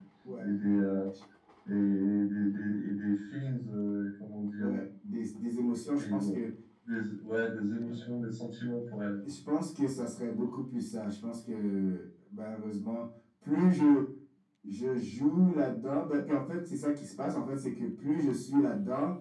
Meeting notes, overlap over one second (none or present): none